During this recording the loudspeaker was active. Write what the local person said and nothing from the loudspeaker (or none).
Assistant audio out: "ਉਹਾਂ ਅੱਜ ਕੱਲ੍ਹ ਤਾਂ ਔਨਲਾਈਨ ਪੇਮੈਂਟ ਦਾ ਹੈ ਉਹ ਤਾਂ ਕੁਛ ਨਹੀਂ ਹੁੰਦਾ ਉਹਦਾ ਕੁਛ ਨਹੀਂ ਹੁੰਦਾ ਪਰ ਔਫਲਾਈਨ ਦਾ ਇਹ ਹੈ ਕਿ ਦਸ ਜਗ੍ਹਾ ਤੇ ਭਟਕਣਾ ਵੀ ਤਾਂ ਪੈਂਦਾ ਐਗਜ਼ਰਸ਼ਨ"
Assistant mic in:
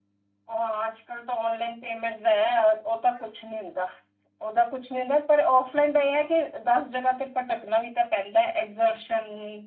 none